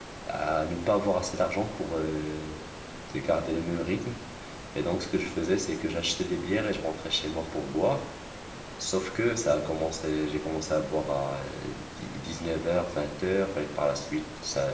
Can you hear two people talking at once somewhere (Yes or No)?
No